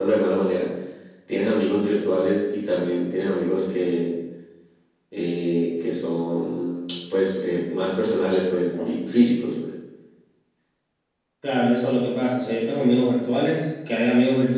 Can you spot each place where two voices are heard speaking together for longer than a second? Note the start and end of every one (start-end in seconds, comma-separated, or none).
none